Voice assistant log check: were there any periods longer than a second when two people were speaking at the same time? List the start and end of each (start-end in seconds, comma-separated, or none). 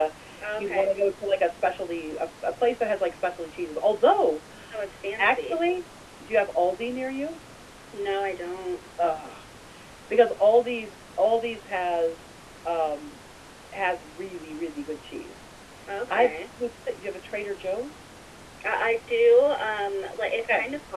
none